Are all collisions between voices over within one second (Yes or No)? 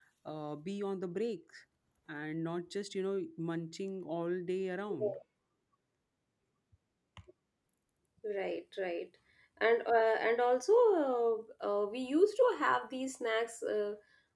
Yes